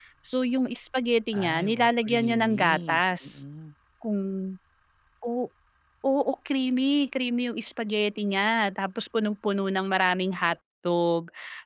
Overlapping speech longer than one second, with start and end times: 1.3-3.4

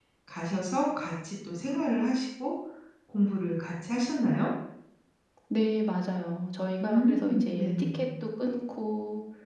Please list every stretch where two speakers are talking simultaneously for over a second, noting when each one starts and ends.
6.8-8.0

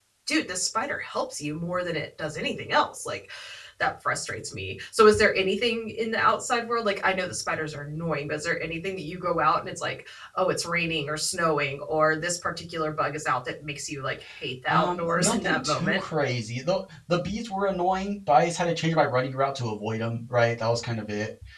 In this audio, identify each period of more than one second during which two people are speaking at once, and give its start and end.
14.7-16.0

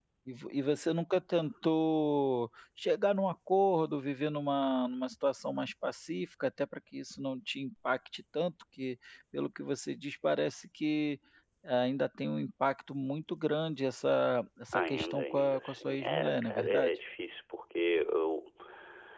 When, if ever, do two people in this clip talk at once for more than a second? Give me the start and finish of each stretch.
14.7-16.9

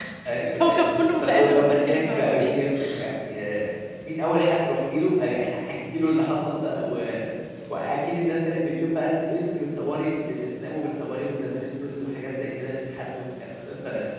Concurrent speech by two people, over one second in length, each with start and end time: 1.2-2.5

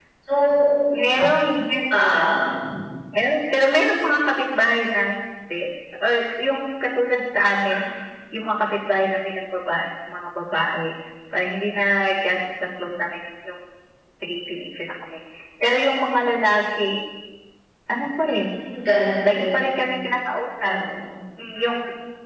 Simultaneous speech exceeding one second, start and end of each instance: none

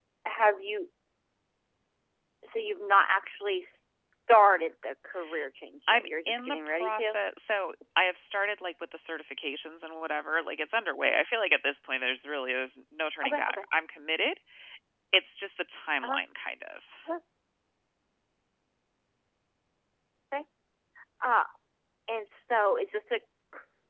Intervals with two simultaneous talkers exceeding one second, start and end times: 5.9-7.2

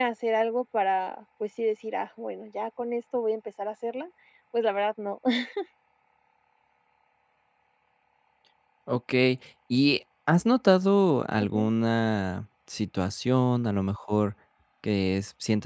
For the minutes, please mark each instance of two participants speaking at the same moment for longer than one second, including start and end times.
none

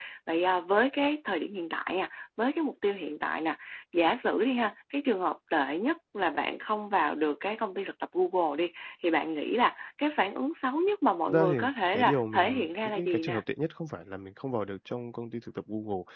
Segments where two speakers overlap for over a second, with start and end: 11.9-13.4

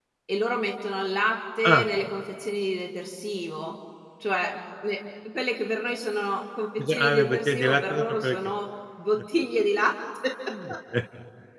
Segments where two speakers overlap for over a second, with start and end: 6.9-8.3

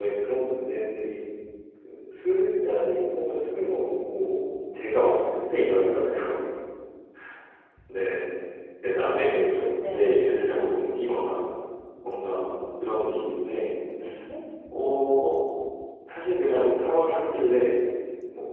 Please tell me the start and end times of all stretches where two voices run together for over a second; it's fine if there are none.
8.9-10.1

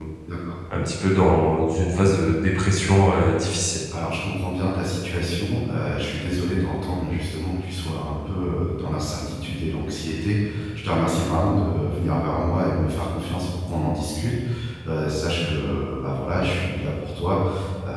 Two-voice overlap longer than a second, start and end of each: none

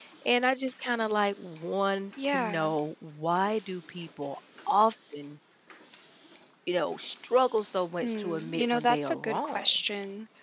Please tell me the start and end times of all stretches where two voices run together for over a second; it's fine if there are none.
8.0-9.7

